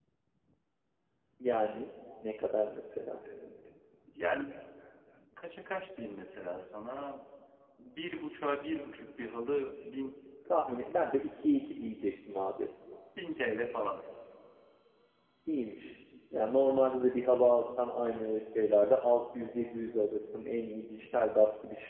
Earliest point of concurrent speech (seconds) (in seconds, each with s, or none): none